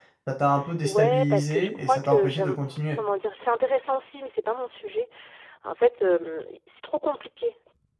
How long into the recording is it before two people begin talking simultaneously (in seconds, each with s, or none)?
0.8 s